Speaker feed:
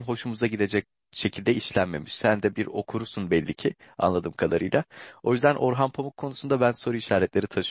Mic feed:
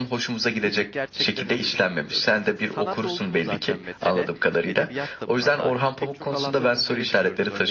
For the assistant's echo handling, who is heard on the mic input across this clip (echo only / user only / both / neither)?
both